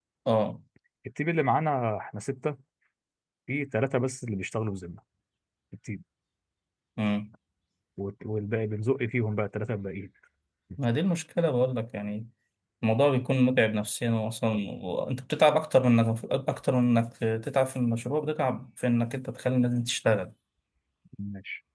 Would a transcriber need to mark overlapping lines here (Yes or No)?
No